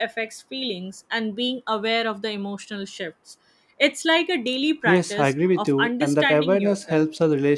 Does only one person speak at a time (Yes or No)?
No